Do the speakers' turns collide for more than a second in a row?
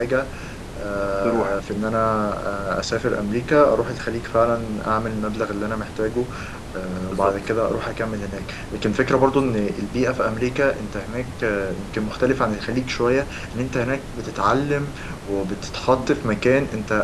No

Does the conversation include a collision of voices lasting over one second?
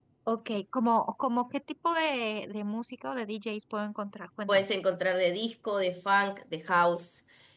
No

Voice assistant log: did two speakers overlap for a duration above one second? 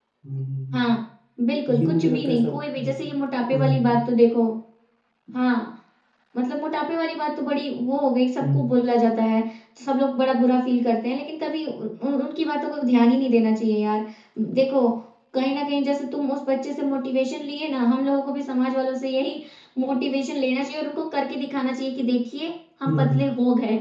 Yes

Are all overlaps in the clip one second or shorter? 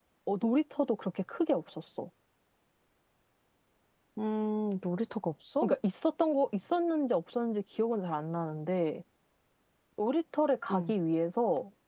Yes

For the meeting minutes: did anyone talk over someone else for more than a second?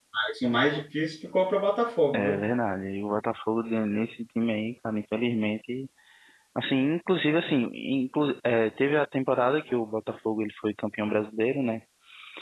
No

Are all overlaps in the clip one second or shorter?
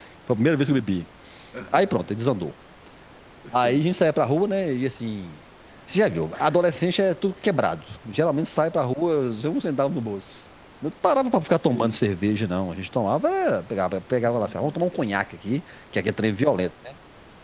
Yes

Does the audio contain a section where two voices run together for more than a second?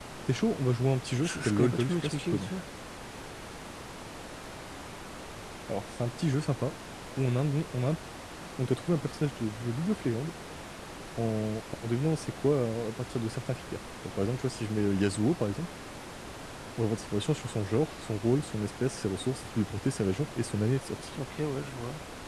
Yes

